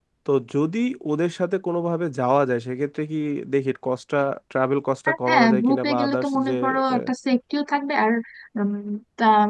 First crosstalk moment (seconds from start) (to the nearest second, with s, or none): 5 s